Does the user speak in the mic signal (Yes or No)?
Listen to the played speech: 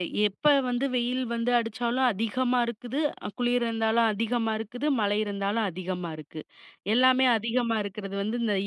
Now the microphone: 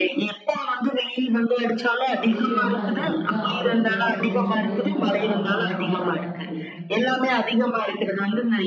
Yes